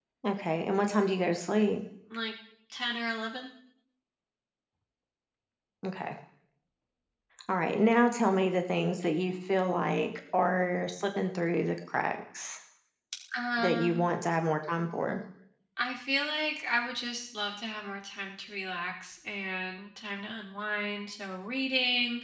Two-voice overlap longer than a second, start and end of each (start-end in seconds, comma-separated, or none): none